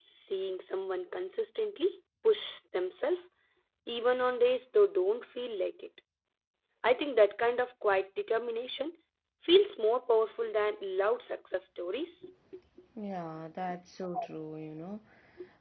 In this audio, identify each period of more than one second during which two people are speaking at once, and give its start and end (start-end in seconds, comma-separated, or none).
none